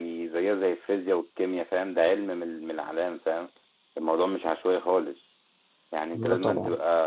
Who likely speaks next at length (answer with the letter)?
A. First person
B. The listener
A